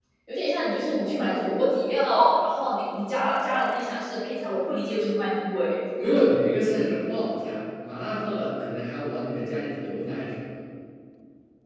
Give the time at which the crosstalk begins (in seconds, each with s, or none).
none